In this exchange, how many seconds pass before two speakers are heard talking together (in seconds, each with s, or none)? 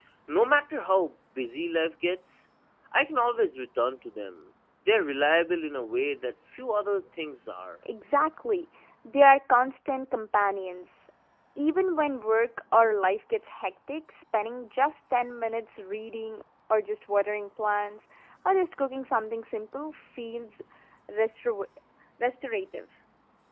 none